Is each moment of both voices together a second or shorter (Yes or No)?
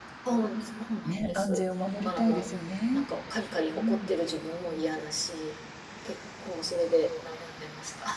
Yes